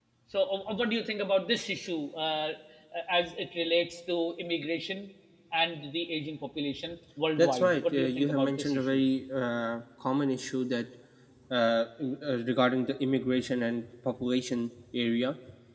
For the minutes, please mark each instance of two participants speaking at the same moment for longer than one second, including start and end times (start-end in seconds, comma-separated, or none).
7.4-9.0